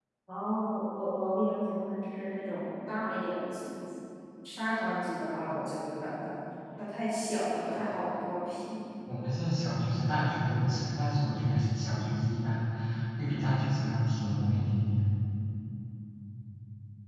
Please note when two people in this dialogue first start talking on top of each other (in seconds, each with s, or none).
none